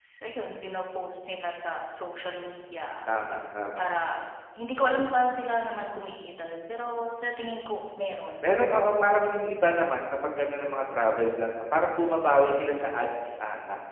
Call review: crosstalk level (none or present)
none